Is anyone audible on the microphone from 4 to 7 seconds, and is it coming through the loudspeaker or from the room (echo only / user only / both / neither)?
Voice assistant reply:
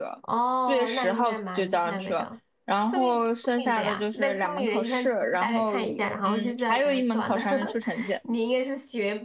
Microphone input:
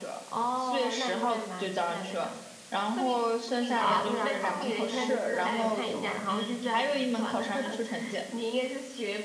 both